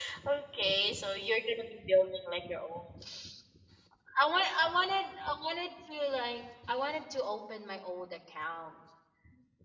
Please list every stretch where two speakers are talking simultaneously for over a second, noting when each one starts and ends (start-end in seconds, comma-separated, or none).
none